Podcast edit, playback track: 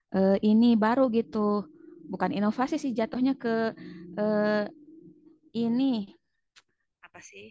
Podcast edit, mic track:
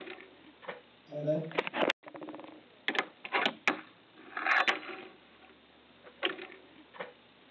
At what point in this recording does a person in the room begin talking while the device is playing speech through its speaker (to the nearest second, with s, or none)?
1 s